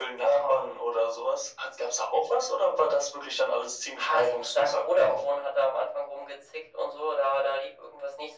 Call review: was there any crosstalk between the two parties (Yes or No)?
Yes